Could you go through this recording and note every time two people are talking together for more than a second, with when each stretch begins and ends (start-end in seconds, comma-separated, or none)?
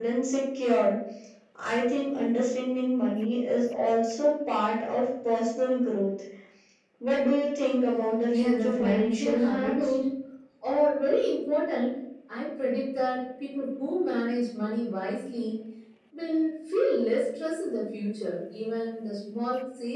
8.4-9.7